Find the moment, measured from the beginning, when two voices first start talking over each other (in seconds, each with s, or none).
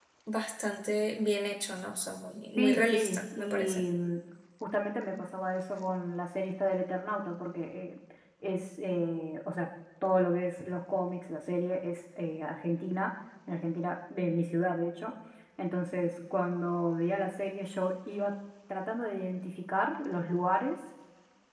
2.6 s